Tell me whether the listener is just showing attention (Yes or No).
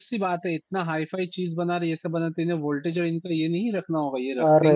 Yes